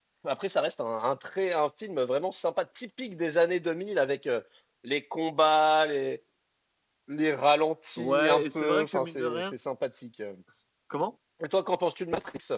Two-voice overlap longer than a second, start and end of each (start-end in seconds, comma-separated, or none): 8.0-9.5